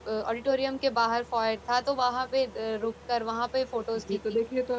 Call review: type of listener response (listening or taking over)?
taking over